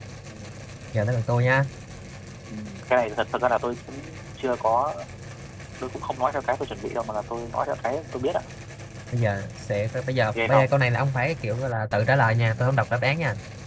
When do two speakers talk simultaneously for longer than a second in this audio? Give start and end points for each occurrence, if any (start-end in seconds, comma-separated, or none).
none